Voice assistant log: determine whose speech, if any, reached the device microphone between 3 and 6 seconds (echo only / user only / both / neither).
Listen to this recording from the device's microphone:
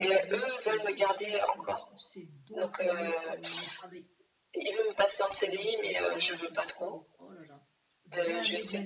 both